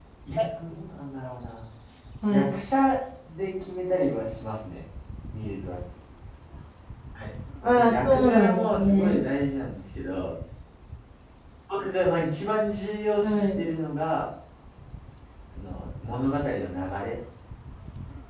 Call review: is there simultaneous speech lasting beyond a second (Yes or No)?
Yes